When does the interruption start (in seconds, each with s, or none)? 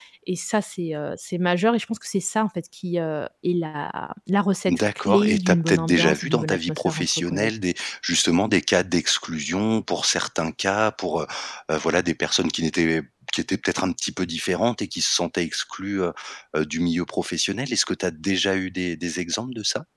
4.7 s